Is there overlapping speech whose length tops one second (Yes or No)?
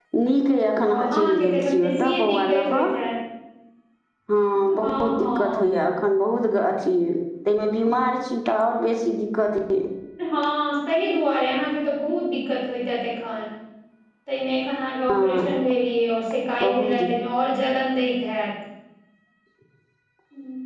Yes